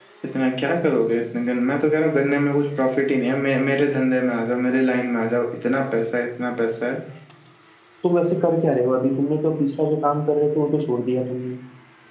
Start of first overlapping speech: none

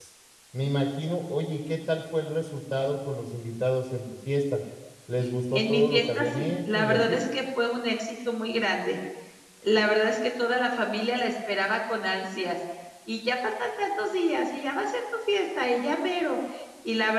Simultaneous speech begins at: 5.5 s

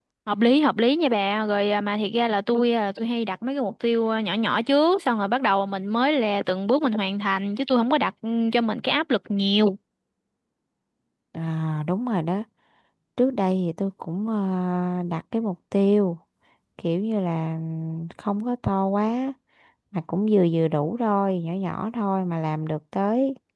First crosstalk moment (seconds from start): none

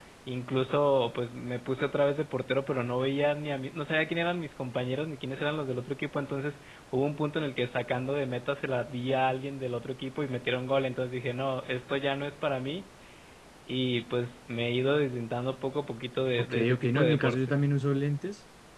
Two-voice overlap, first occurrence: 16.4 s

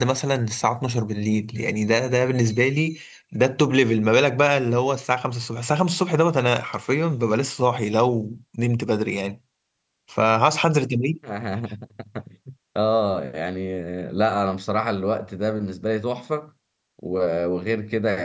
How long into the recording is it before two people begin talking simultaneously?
none

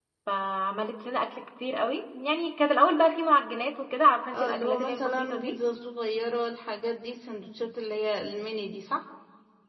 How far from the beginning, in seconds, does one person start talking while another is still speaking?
4.3 s

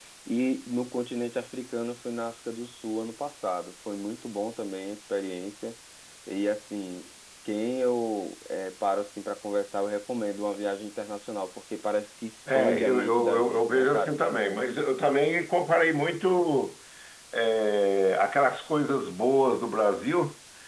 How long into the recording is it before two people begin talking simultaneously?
12.5 s

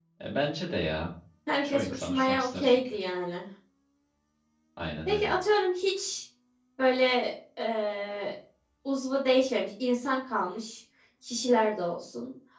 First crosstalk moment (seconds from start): 1.6 s

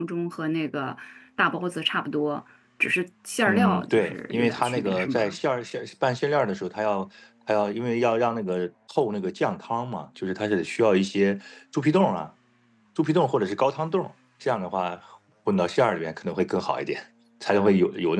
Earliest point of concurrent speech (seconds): 3.5 s

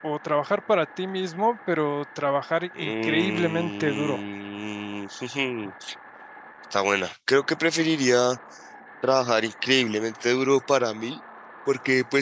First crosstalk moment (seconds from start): 2.8 s

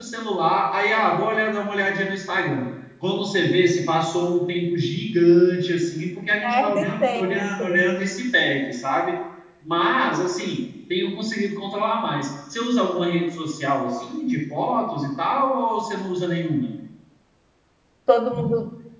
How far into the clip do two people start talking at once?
6.4 s

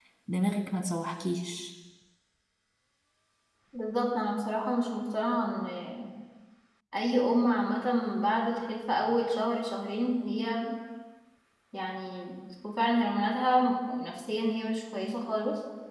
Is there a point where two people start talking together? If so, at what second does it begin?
none

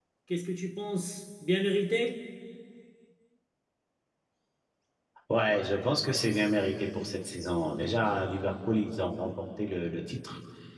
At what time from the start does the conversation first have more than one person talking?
none

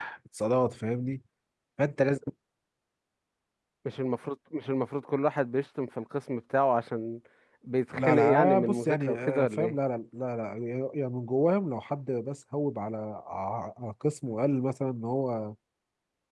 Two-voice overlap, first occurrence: 8.0 s

